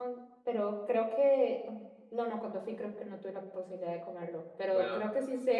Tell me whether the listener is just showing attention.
Yes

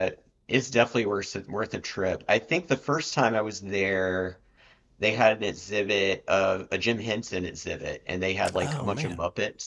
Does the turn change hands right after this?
No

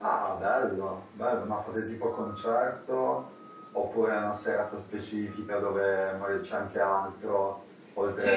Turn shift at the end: Yes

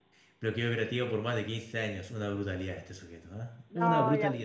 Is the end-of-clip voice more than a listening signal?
Yes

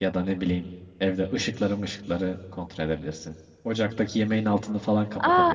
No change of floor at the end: No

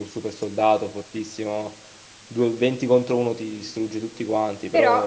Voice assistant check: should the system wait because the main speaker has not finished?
No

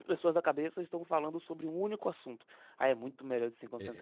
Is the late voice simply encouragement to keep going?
No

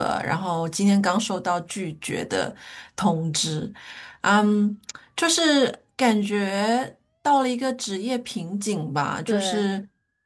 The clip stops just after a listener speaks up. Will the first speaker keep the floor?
Yes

